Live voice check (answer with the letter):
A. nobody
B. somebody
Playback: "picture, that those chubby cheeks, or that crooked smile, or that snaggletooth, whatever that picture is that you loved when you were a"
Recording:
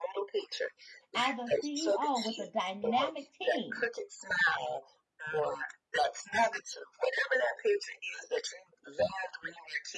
B